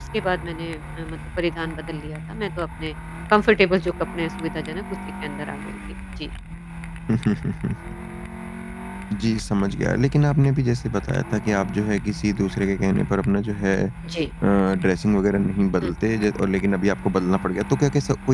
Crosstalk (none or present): none